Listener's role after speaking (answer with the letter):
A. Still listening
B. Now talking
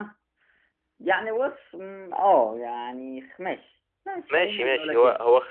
B